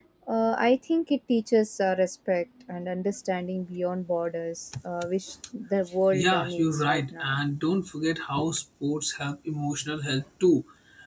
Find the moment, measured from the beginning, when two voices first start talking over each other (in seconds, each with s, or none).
6.1 s